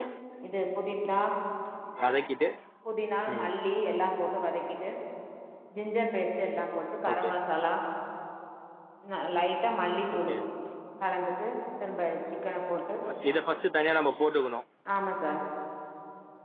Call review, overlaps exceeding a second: none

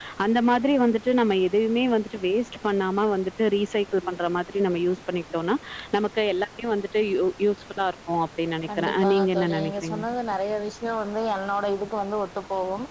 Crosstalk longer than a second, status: present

